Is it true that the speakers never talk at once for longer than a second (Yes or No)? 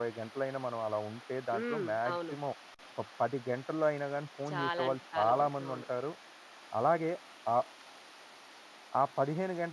No